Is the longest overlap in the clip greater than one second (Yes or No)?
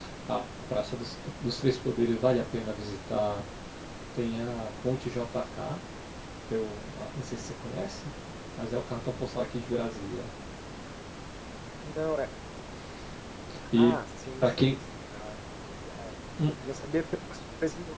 No